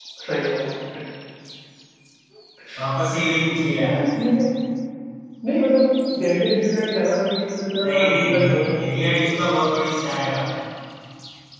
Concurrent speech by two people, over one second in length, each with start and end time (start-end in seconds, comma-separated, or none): 7.8-9.3